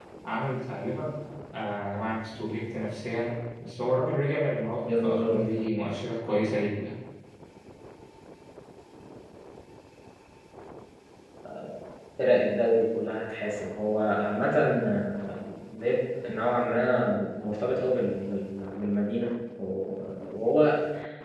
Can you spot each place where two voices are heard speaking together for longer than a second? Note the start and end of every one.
none

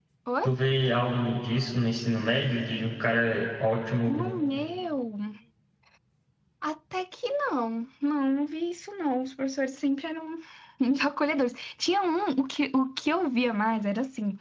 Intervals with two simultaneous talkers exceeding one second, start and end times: none

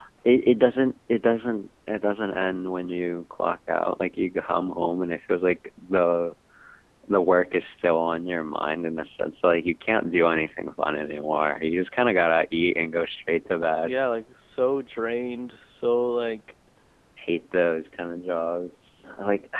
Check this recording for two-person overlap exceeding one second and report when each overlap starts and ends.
none

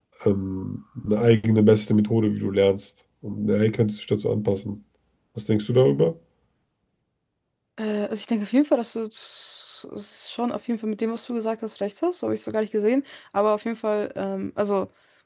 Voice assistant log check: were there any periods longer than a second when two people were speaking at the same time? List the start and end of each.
none

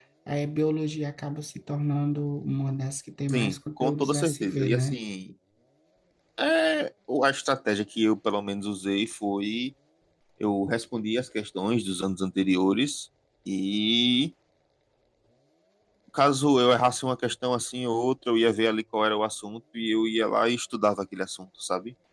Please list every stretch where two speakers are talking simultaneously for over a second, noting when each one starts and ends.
3.3-5.0

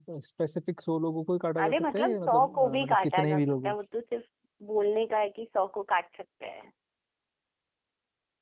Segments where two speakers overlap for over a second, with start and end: 1.6-3.7

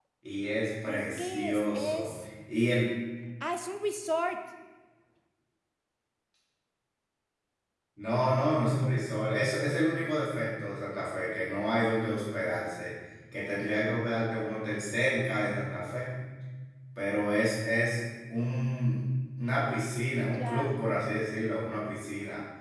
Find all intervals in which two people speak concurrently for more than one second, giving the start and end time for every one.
0.9-2.1

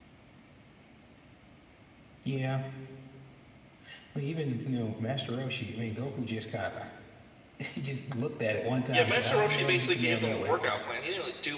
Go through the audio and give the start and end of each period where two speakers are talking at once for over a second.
8.9-10.6

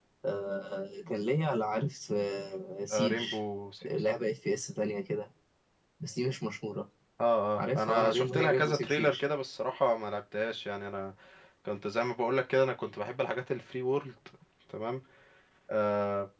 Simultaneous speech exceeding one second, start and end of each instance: 7.6-9.2

